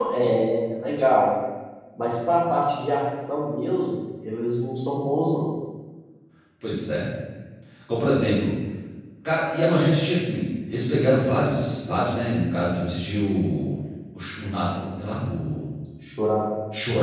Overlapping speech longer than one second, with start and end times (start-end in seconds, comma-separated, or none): none